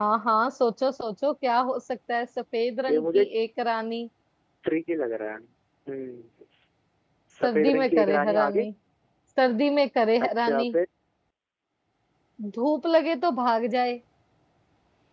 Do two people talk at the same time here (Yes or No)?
Yes